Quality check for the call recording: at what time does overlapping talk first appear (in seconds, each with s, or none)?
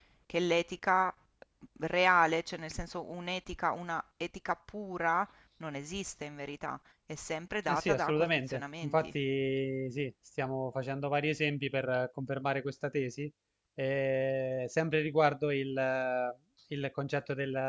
7.7 s